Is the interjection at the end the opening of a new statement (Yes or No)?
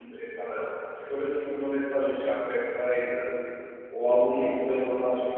No